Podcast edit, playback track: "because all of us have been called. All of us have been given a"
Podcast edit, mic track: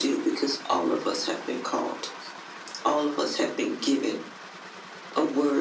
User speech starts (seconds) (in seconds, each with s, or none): none